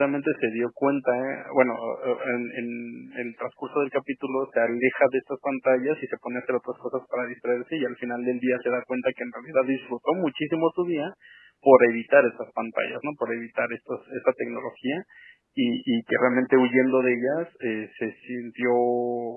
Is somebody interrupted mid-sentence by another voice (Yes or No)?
No